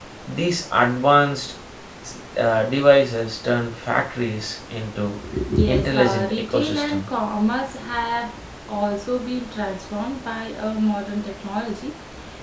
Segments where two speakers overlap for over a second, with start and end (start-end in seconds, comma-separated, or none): 5.7-7.1